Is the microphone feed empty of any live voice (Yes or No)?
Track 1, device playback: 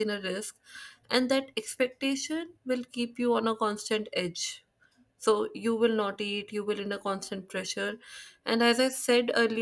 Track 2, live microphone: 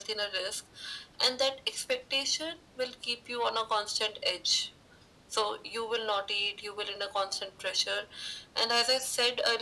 Yes